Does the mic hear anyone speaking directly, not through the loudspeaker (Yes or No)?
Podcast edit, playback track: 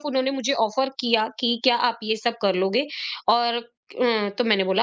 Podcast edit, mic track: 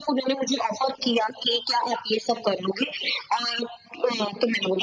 No